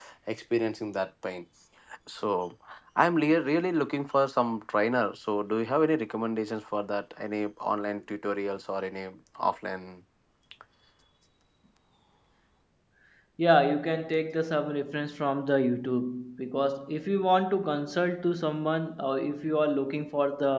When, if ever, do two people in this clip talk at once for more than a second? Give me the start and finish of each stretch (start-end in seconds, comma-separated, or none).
none